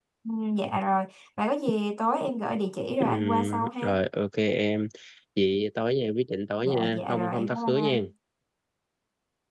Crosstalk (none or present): present